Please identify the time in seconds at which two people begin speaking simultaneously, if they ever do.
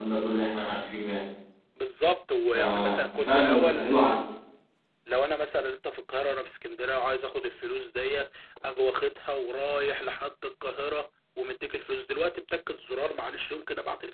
2.5 s

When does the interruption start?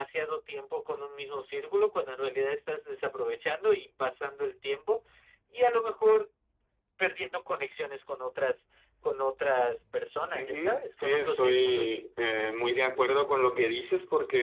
10.3 s

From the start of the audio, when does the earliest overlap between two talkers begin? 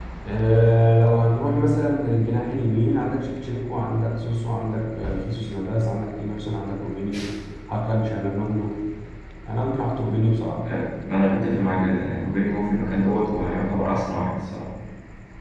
none

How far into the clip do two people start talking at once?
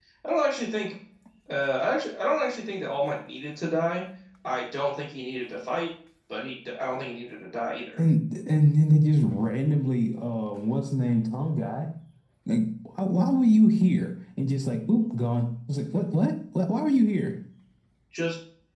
none

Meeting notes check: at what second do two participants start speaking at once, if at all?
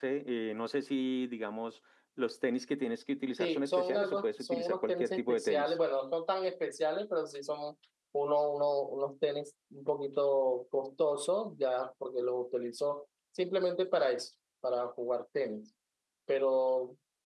3.4 s

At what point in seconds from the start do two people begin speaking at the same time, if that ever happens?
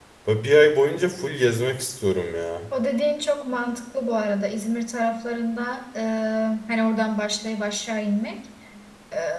none

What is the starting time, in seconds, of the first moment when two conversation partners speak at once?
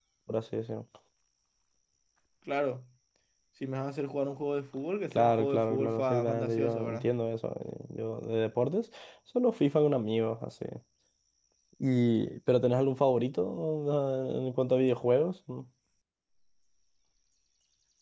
5.1 s

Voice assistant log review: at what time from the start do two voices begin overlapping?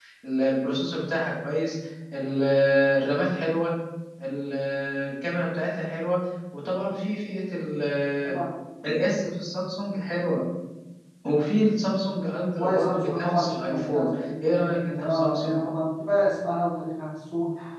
12.5 s

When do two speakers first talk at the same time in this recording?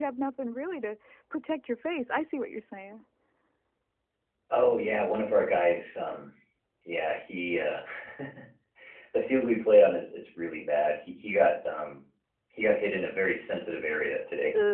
none

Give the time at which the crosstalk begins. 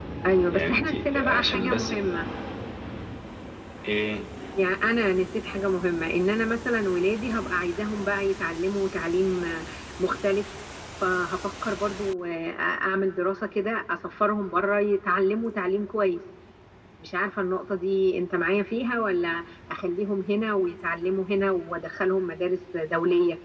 0.5 s

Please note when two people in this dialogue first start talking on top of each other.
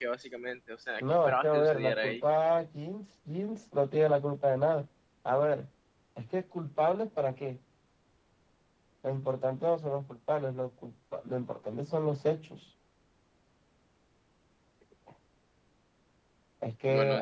1.0 s

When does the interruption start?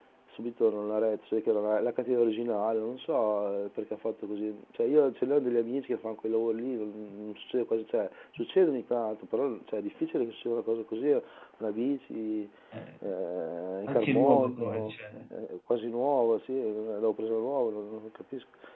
13.9 s

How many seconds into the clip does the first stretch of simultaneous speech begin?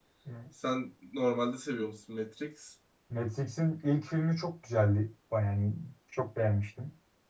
none

